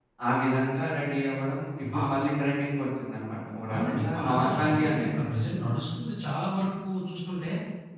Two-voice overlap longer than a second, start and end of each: 3.7-5.3

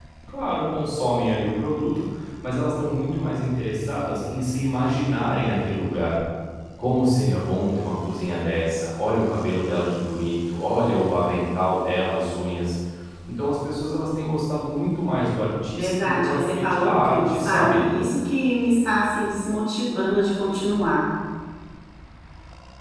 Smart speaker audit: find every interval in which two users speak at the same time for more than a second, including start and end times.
15.7-17.8

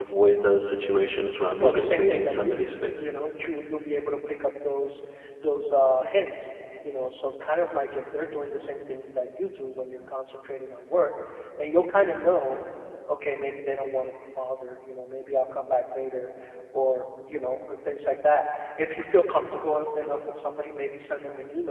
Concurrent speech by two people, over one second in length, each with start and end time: 1.6-3.1

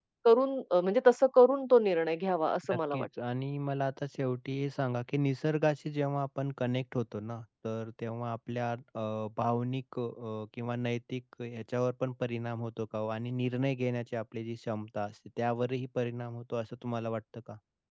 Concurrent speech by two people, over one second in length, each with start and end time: none

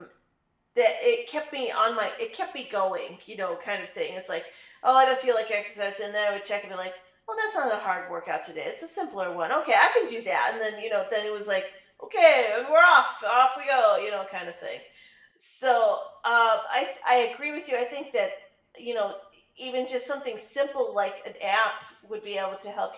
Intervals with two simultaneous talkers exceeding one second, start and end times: none

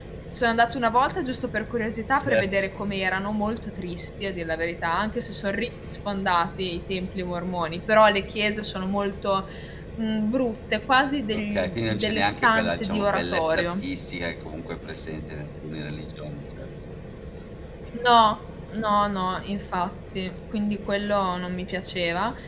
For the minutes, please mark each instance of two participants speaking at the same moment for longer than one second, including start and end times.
11.3-13.8

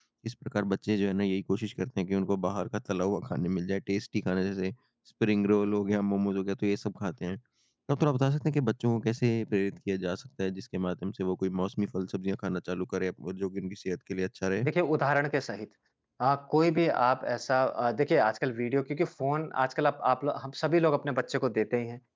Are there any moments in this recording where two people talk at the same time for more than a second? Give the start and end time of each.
none

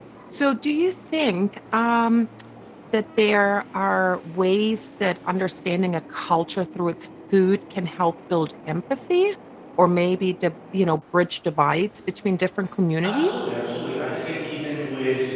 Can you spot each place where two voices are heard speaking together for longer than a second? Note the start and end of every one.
none

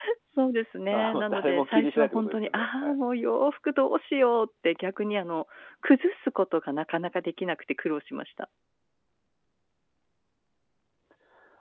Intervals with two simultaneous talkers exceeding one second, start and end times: 0.9-3.0

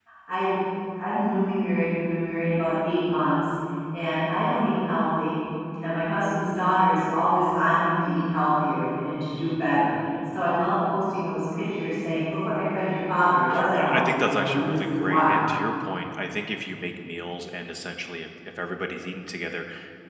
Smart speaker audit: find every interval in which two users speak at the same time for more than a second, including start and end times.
13.7-15.4

